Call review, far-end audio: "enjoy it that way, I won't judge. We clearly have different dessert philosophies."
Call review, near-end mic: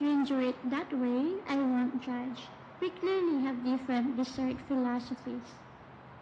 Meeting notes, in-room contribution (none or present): none